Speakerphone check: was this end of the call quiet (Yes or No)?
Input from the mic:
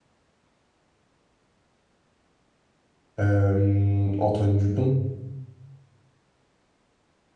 No